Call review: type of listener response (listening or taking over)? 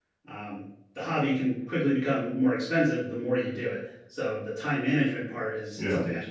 listening